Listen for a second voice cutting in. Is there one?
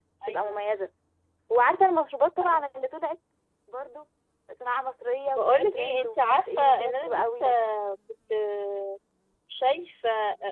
Yes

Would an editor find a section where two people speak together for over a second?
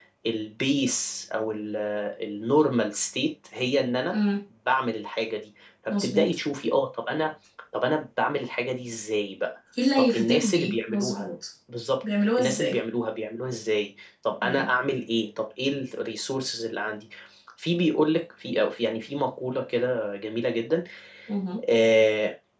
Yes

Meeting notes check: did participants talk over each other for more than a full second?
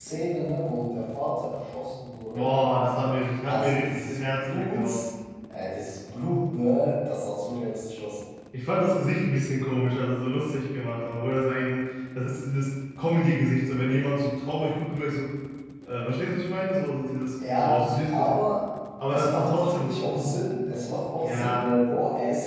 Yes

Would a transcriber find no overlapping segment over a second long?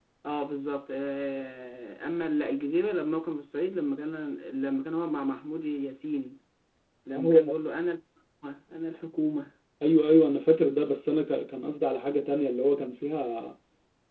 Yes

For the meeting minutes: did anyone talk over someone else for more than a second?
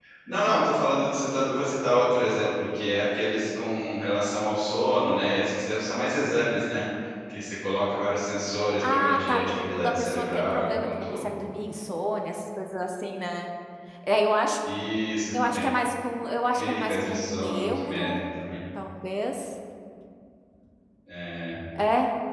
Yes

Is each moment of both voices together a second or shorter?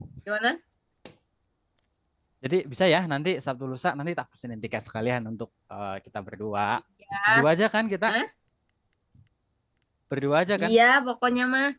Yes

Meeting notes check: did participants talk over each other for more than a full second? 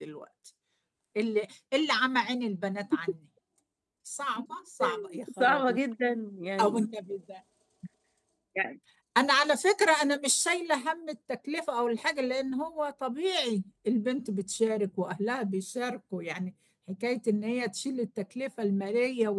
No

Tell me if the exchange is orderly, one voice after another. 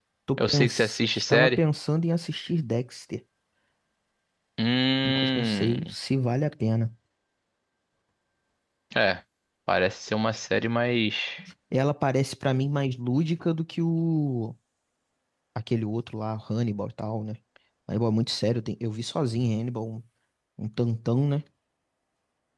No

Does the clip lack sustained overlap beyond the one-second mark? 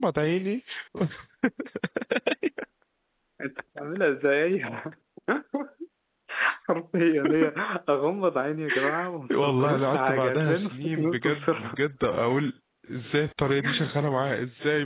No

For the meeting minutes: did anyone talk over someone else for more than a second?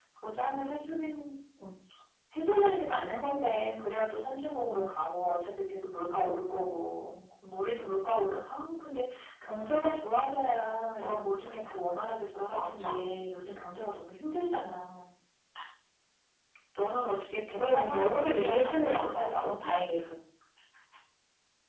Yes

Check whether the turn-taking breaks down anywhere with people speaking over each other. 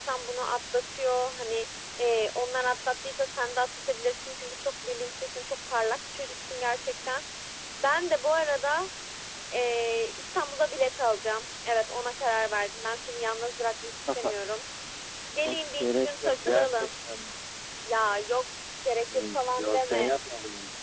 Yes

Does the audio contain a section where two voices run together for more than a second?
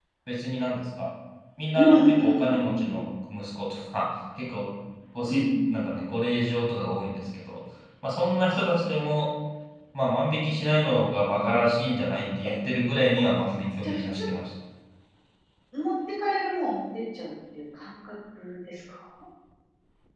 Yes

